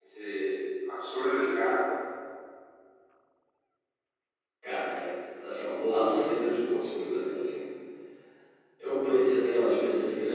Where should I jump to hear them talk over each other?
none

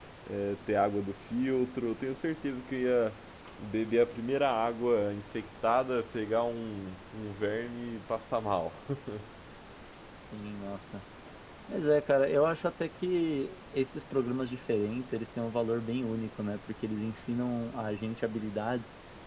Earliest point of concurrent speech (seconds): none

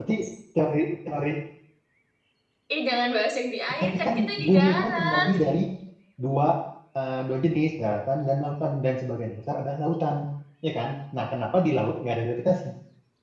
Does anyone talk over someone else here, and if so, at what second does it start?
3.7 s

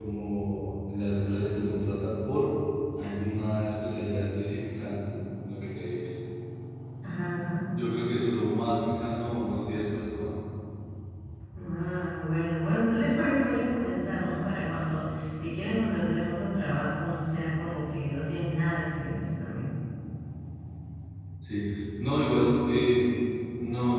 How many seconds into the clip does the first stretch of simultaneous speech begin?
none

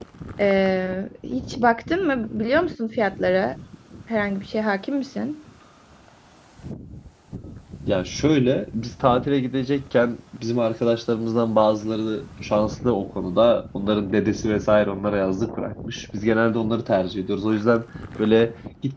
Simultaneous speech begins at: none

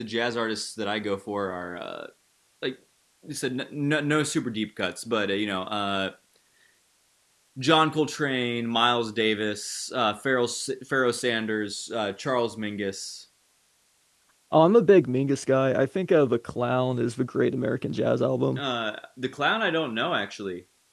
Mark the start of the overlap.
none

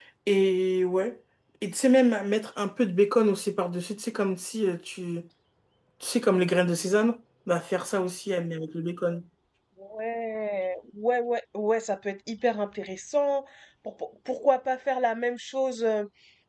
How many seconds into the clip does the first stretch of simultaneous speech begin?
none

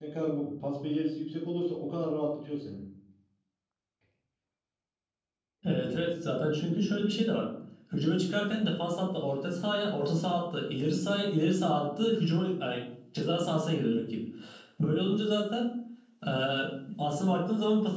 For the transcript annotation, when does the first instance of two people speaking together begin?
none

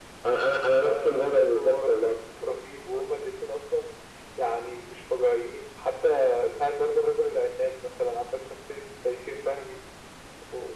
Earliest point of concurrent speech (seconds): 0.8 s

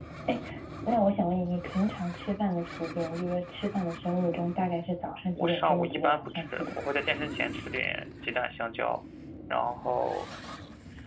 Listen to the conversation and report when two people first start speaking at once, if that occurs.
5.3 s

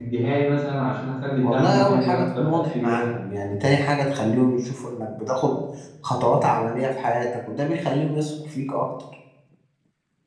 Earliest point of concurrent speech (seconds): 1.4 s

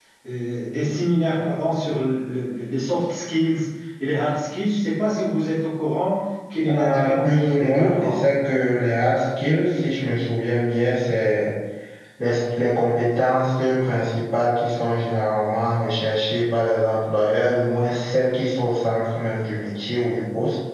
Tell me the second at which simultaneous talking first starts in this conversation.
6.7 s

